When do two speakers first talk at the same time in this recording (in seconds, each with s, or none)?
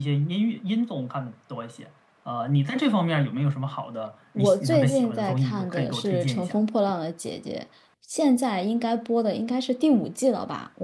4.4 s